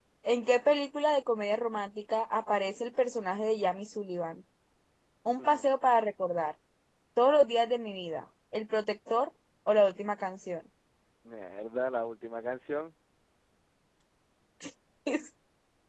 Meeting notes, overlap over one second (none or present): none